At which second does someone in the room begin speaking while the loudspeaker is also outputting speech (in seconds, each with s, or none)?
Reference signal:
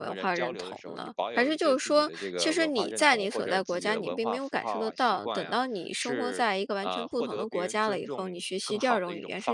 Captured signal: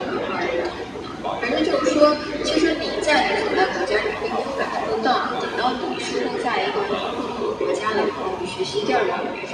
none